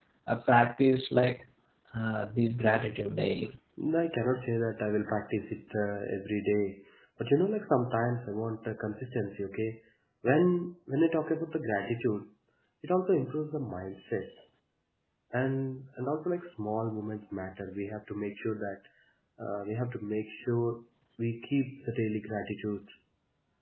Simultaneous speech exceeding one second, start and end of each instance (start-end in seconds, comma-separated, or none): none